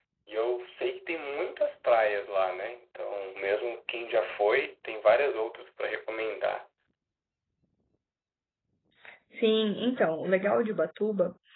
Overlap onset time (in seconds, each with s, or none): none